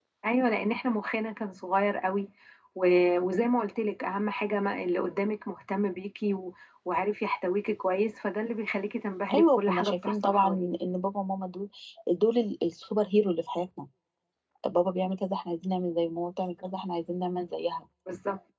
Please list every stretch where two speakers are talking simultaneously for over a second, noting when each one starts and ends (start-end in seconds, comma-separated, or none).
9.3-10.7